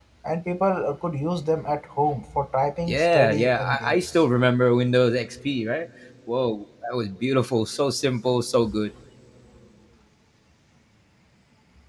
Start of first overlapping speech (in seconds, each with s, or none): 2.9 s